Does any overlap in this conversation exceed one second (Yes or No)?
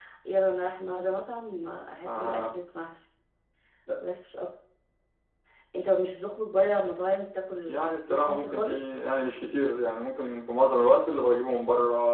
Yes